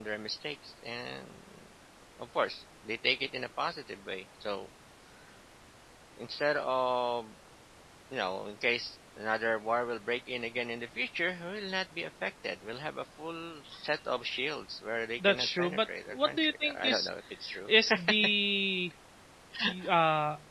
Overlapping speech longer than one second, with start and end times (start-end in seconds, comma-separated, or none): 15.3-17.1